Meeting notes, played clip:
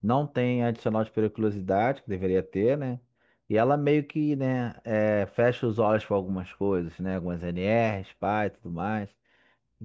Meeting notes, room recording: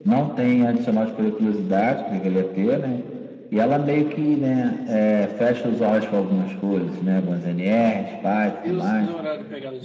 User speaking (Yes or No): Yes